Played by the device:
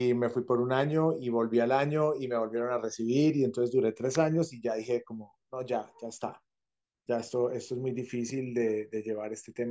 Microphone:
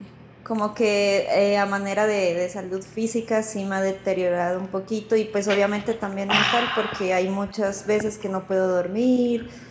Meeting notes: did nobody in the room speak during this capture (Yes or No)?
No